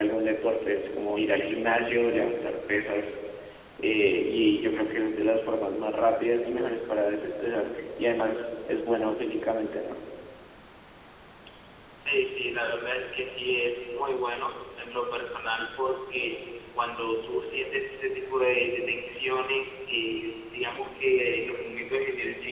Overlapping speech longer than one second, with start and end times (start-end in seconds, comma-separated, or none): none